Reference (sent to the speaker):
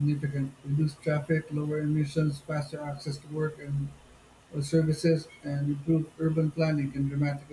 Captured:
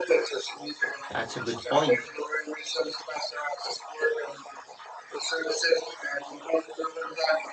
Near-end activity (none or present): present